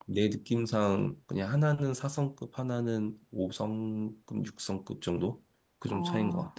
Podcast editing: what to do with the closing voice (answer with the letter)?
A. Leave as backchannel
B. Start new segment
B